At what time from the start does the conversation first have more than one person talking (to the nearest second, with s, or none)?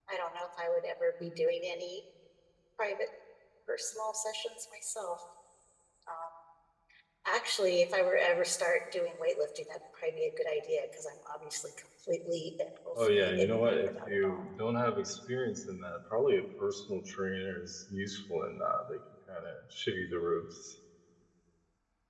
13 s